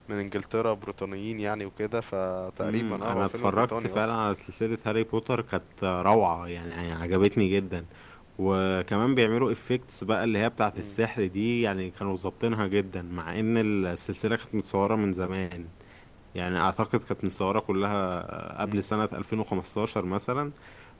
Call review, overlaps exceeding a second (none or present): present